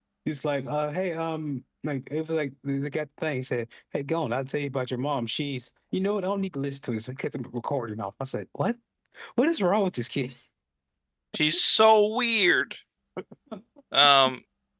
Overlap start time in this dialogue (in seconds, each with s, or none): none